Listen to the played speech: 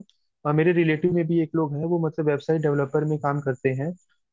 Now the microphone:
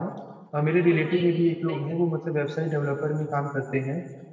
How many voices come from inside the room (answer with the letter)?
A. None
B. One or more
B